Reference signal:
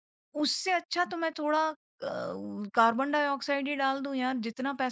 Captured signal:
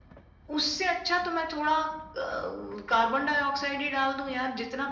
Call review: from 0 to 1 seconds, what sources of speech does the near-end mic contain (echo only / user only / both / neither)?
echo only